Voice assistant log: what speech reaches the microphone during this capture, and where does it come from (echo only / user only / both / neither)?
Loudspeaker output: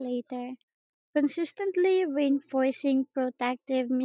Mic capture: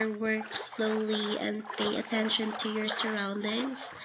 user only